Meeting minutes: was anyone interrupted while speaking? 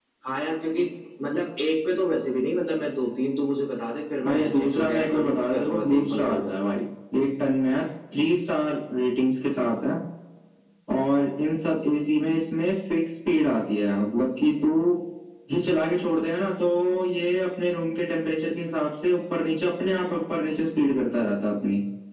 Yes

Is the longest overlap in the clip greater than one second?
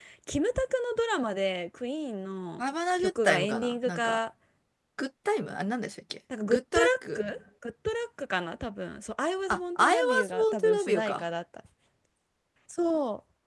Yes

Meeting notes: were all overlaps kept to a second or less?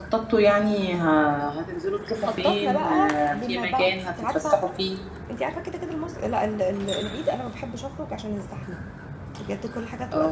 No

